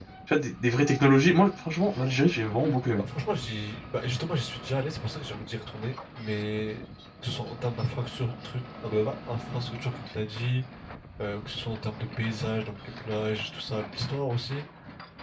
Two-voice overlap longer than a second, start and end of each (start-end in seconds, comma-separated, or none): none